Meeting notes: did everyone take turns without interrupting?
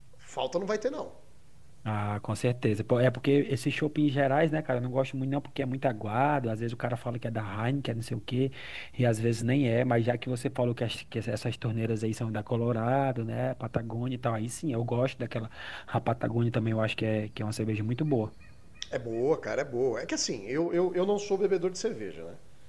Yes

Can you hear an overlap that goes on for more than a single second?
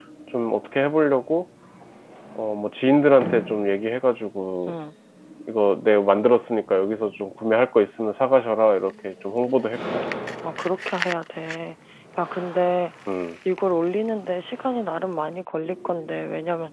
No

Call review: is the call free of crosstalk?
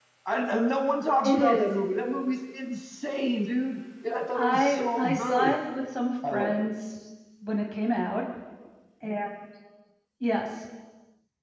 No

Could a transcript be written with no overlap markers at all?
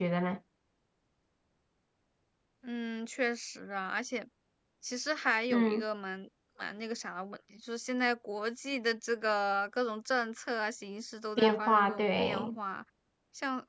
No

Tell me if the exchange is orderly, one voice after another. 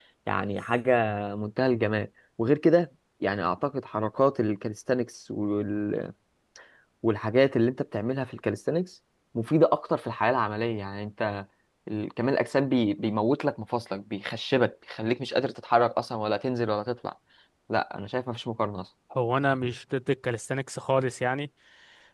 Yes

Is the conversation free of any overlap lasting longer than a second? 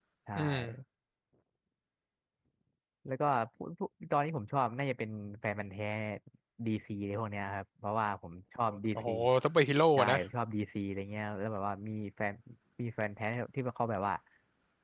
Yes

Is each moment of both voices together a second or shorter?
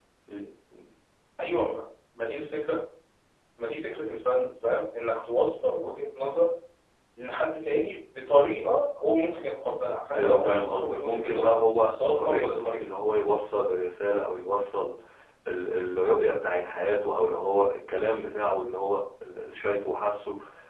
No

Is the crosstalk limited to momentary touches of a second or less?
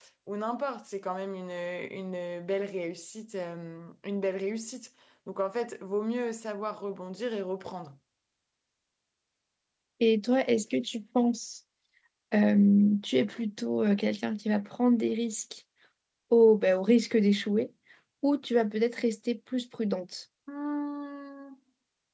Yes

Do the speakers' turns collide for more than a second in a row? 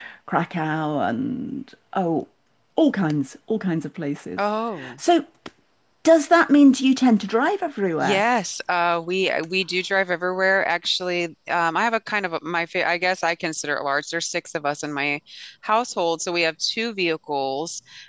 No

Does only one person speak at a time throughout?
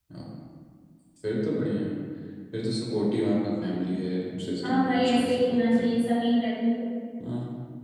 No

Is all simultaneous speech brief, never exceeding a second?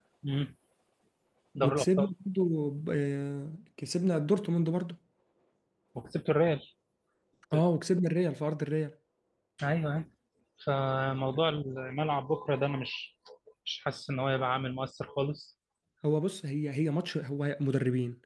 Yes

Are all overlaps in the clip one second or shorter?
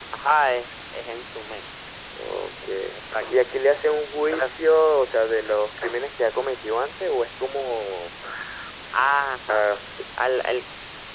Yes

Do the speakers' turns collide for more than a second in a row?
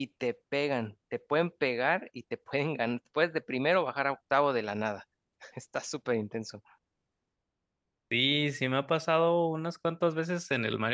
No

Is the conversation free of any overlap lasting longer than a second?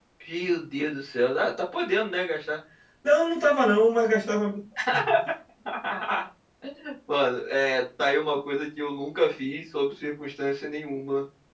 Yes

